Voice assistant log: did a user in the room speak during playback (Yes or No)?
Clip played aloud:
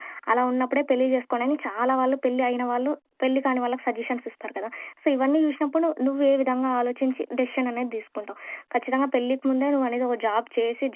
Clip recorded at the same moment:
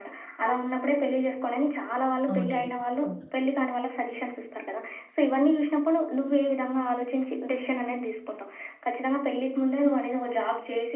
Yes